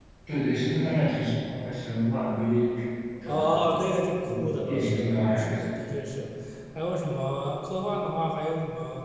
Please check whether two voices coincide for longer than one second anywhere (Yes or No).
Yes